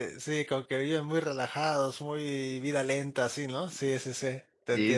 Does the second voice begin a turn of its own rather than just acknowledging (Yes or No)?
Yes